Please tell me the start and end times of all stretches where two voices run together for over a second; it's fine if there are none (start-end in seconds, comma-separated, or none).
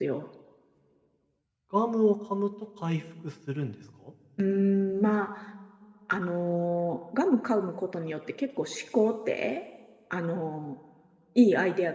none